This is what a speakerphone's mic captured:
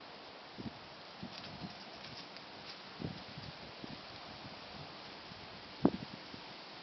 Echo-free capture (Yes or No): Yes